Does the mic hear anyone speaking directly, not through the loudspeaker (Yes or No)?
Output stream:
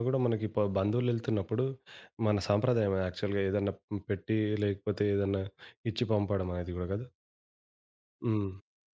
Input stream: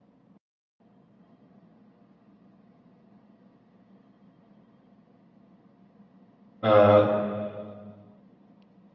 Yes